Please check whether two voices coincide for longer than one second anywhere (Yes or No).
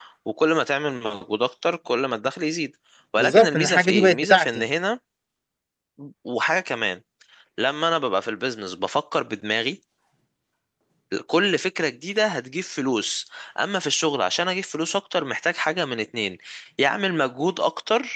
Yes